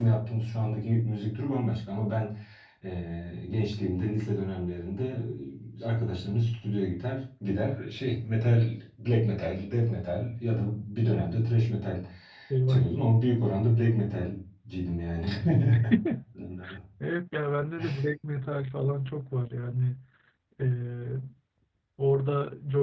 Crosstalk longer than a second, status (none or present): none